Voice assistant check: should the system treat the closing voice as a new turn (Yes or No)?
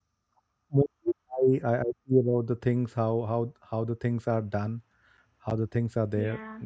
Yes